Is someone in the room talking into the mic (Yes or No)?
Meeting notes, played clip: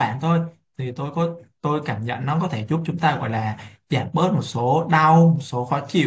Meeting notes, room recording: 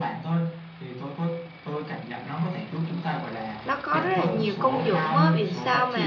Yes